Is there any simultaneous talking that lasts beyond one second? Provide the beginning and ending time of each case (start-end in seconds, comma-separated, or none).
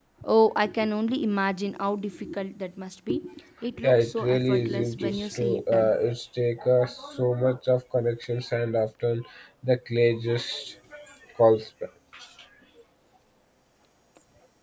3.8-6.0